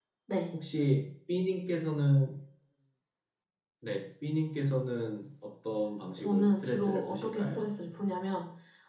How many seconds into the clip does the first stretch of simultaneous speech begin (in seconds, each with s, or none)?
6.2 s